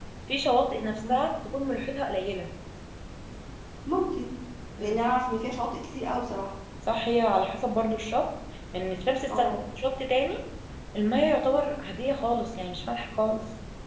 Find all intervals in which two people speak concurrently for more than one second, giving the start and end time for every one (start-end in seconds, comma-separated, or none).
none